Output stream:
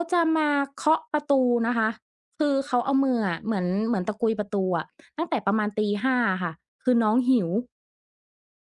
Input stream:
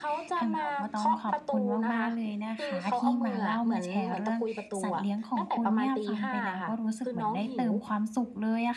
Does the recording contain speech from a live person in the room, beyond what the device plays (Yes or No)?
Yes